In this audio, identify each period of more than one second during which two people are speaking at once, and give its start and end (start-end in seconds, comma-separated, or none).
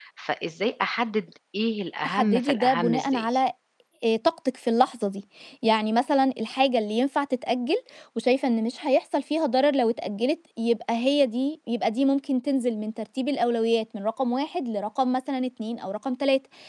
2.0-3.3